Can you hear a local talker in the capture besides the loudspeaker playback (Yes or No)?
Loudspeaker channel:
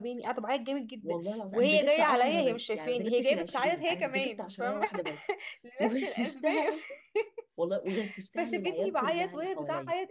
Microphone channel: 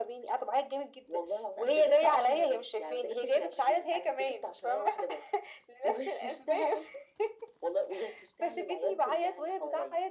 No